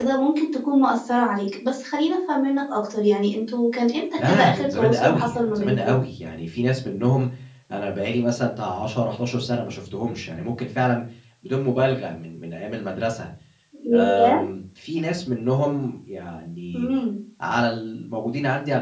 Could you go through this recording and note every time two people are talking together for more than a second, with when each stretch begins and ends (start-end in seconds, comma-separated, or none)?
4.2-5.9